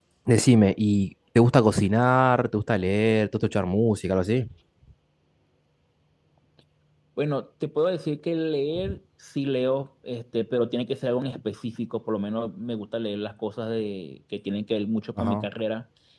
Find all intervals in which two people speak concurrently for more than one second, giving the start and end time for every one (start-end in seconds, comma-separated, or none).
none